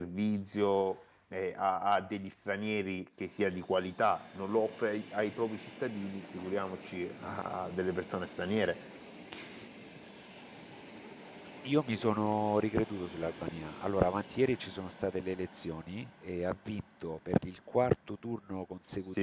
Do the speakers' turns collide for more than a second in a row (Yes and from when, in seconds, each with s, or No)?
No